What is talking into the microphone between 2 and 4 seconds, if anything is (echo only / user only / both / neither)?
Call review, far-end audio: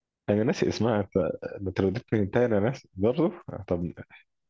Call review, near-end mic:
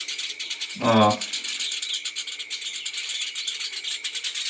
neither